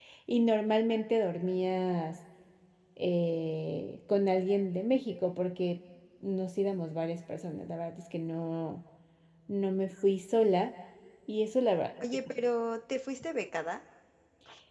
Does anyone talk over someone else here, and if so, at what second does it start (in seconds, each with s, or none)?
none